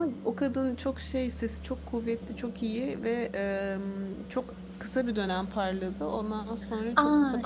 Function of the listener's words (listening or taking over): taking over